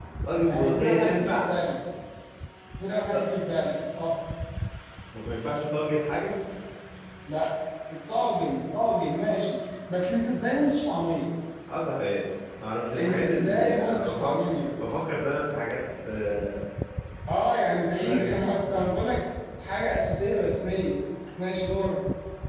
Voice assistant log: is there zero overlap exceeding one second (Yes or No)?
No